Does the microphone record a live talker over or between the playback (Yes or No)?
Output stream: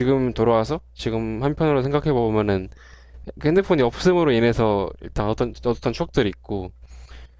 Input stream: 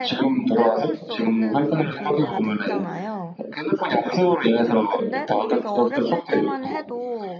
Yes